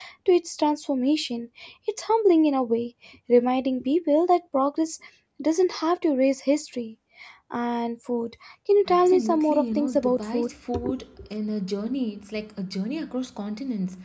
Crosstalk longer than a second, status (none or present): present